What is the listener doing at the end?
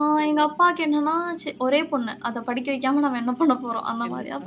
listening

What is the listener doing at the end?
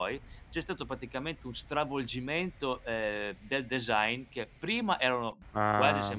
listening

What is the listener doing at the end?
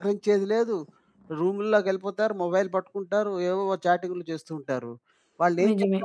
listening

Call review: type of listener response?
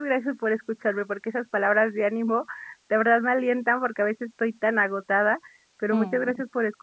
listening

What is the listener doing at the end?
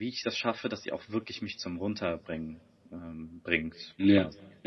taking over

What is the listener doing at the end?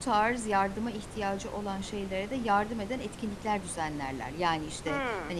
listening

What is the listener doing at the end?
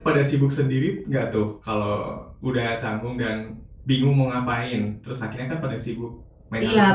taking over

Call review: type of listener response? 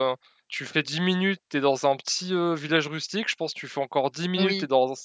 listening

